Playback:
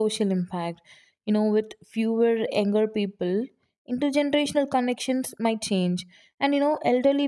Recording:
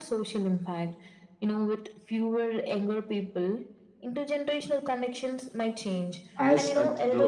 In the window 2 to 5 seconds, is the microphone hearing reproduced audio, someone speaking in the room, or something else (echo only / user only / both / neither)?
echo only